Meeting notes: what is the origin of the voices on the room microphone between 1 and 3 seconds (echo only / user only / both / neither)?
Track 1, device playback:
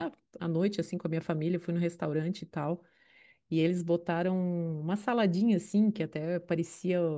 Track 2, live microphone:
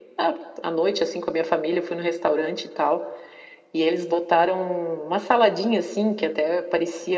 echo only